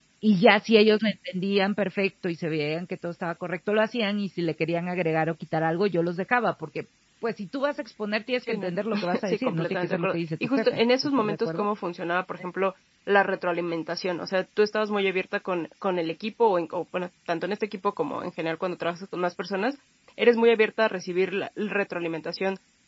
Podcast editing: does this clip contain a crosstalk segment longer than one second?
Yes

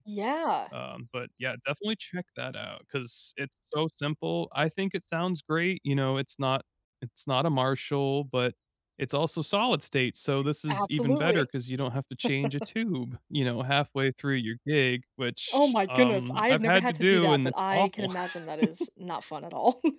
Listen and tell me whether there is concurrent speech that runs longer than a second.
Yes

